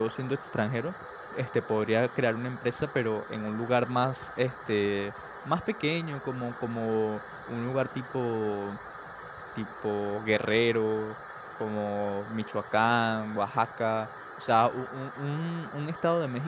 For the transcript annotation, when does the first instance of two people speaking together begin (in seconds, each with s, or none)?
none